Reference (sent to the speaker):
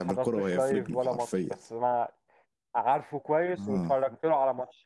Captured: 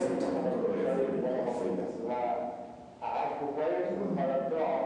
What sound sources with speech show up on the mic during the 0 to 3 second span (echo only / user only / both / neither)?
echo only